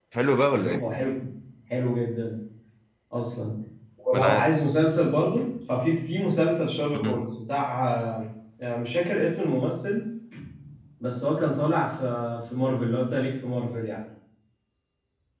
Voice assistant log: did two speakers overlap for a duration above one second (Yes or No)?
No